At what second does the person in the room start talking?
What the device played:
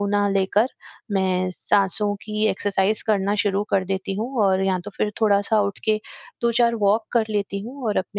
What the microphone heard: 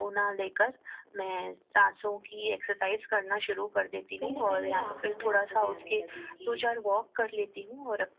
4.2 s

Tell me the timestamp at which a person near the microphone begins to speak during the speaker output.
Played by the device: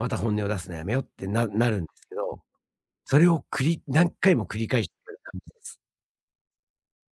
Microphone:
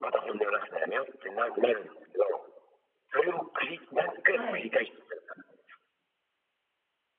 4.2 s

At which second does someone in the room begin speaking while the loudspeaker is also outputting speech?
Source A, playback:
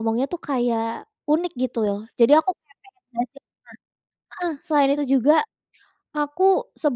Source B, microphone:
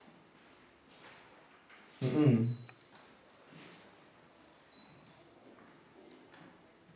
2.0 s

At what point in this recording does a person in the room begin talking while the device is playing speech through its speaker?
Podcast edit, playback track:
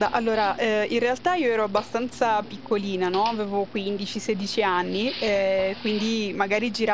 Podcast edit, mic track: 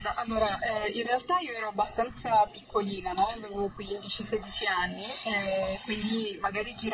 none

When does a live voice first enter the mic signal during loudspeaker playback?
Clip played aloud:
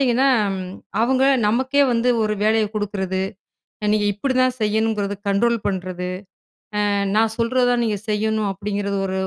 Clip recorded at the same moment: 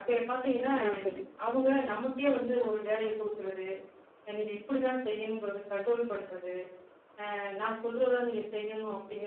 0.8 s

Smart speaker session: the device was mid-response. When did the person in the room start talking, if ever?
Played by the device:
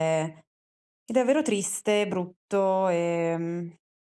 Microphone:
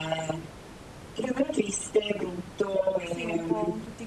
3.1 s

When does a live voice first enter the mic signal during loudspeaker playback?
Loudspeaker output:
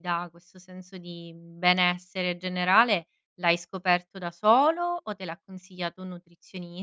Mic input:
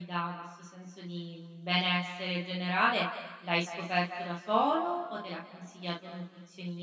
none

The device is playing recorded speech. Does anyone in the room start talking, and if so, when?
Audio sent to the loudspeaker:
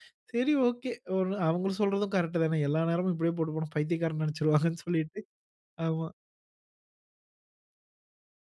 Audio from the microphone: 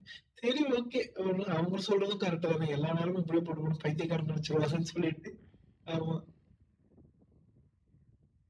none

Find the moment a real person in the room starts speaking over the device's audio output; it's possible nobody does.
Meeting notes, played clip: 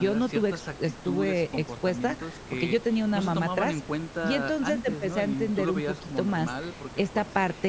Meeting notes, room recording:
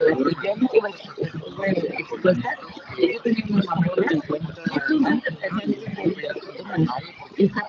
none

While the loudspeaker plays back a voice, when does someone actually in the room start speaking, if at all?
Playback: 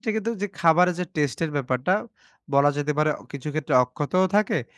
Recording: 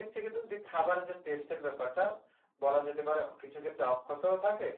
none

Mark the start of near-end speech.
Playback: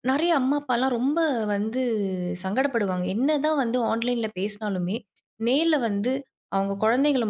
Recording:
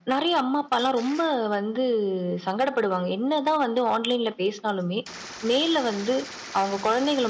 none

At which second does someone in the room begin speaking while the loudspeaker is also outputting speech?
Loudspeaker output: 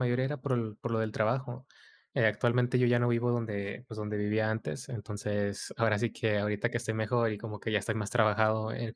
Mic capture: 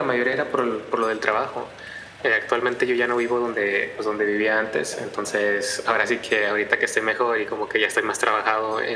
none

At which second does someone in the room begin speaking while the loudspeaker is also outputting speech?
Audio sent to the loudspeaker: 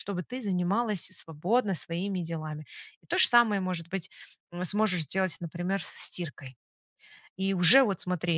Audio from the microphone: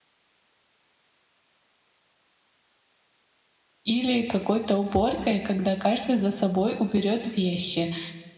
3.8 s

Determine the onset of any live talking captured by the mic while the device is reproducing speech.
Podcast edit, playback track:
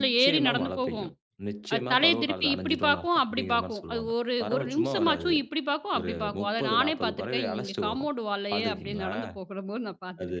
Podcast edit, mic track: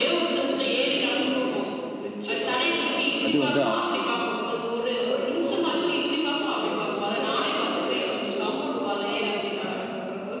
3.3 s

